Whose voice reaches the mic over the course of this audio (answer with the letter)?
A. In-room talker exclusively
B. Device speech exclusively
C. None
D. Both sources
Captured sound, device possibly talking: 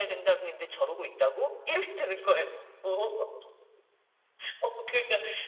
B